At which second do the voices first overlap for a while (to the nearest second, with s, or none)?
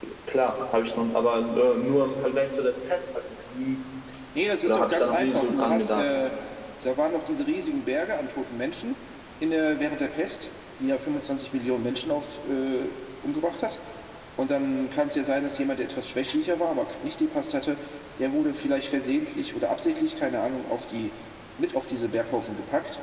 5 s